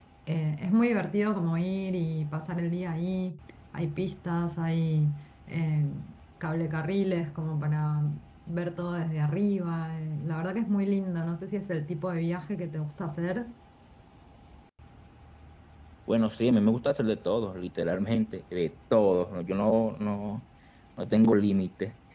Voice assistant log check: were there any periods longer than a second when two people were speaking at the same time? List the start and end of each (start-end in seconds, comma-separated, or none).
none